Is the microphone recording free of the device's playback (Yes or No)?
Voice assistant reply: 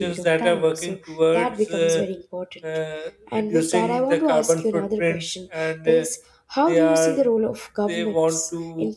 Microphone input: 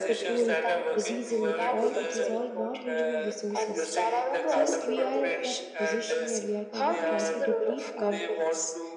No